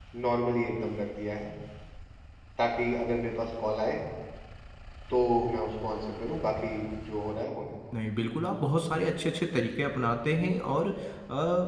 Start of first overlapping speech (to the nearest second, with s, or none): none